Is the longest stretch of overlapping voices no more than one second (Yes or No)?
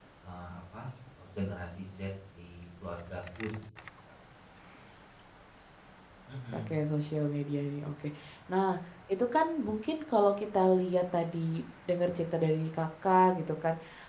Yes